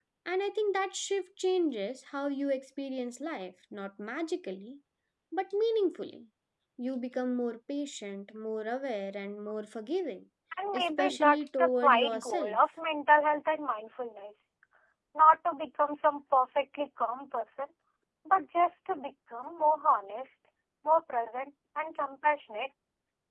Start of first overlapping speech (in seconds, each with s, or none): 10.7 s